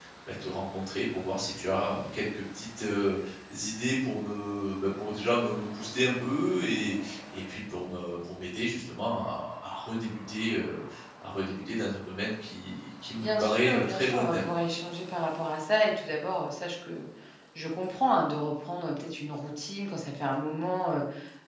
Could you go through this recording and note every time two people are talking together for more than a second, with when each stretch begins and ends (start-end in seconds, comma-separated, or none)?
13.2-14.4